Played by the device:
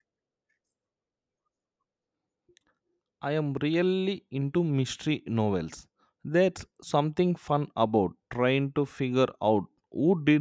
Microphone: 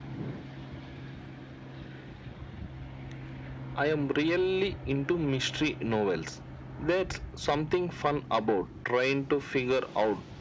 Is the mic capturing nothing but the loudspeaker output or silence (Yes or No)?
Yes